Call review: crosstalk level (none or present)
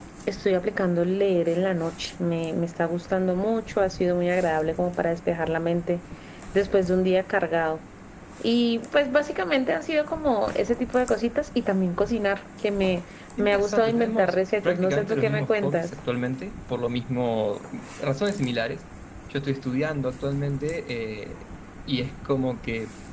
present